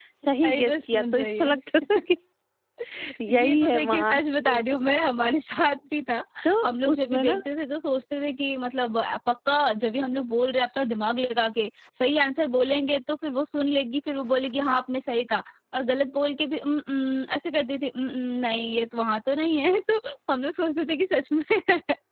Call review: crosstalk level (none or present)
present